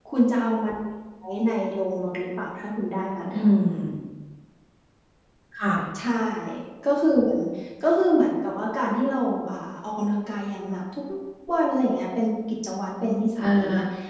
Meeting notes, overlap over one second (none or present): none